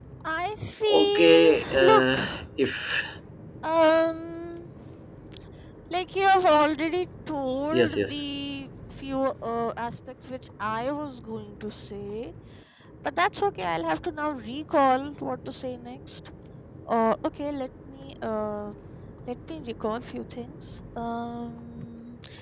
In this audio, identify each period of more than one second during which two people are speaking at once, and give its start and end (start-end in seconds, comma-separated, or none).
0.8-2.1